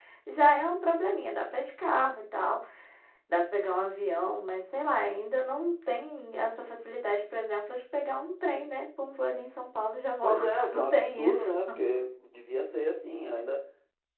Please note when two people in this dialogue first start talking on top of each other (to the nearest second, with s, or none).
10 s